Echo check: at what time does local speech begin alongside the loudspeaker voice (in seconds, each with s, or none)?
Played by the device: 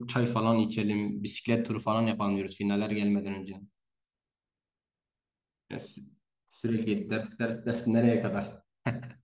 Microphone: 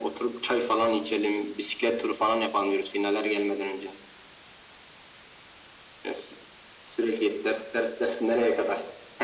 none